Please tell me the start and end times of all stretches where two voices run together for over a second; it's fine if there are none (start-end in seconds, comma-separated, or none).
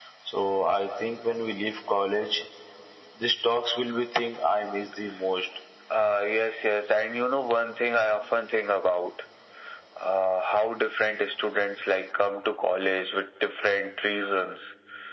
none